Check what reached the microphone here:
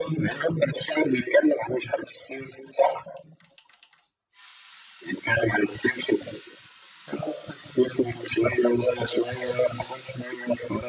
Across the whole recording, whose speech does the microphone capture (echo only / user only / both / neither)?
echo only